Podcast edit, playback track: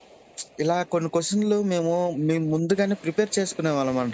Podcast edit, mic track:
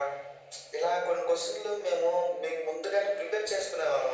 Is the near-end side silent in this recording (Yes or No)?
Yes